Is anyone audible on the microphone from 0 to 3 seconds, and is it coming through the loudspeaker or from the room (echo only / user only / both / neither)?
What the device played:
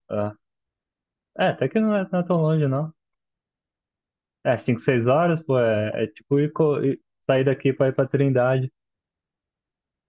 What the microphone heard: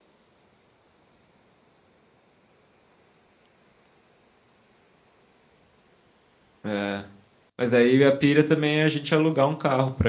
neither